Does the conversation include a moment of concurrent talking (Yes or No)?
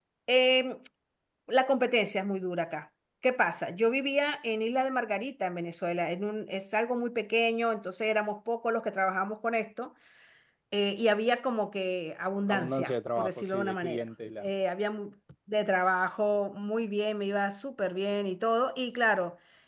Yes